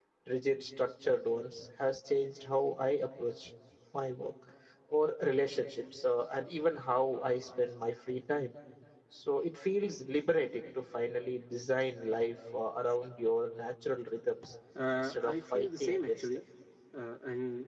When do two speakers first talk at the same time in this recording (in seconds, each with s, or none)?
15.0 s